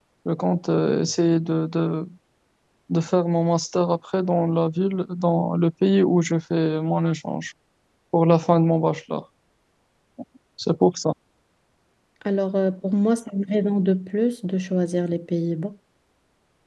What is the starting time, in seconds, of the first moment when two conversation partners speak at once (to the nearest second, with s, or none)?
none